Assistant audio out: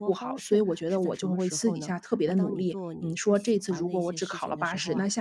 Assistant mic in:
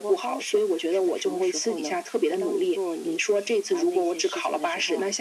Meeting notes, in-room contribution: none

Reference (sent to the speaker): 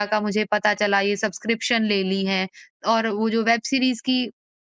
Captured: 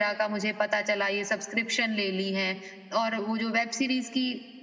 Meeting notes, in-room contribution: none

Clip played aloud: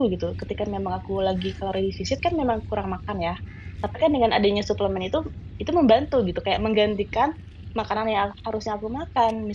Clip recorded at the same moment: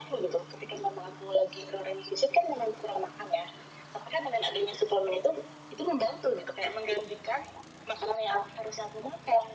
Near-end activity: none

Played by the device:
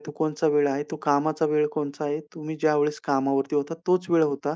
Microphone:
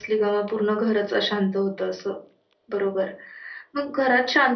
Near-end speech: present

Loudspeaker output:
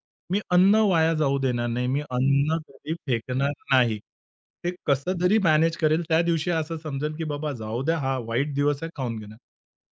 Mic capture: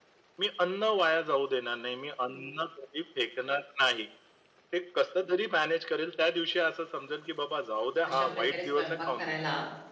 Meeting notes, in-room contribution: present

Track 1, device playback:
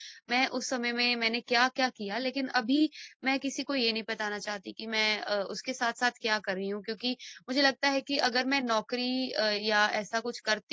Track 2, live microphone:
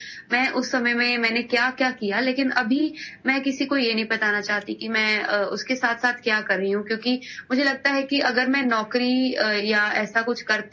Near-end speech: none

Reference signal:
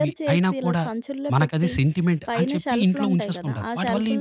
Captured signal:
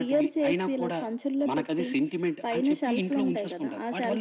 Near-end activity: none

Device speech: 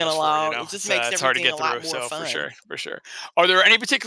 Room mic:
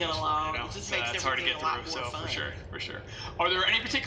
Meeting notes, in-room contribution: none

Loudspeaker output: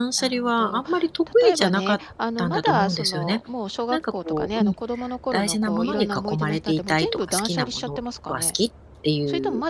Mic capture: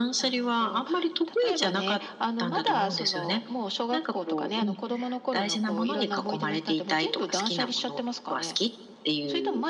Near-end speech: none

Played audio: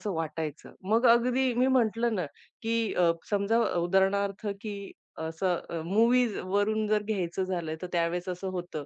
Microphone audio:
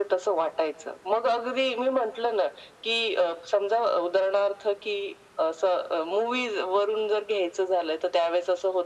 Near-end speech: none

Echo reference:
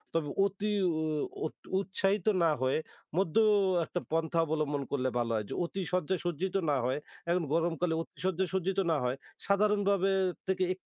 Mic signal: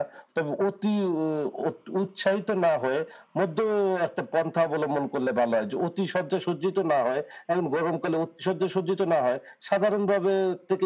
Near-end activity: none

